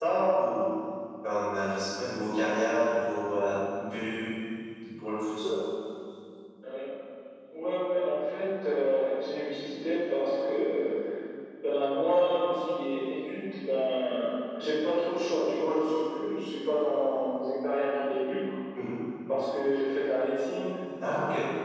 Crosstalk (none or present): none